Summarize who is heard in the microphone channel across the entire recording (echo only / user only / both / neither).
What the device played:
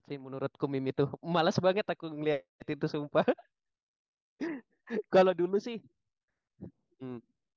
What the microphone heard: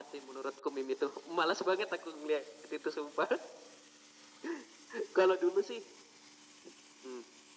echo only